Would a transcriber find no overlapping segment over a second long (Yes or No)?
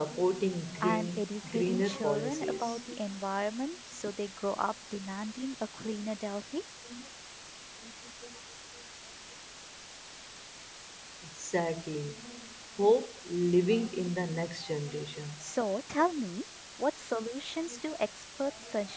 No